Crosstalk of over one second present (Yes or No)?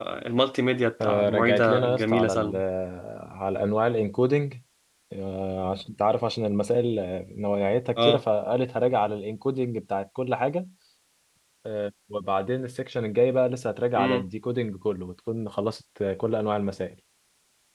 Yes